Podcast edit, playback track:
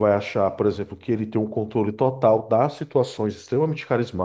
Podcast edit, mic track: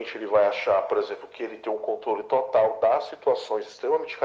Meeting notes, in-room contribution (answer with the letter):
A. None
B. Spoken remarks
A